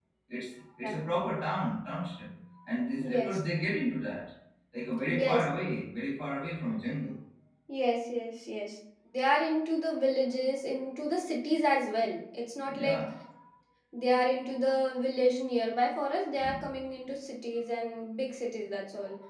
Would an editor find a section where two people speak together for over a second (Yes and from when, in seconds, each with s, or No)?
No